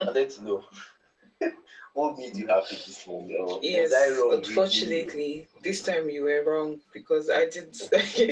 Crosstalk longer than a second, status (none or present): present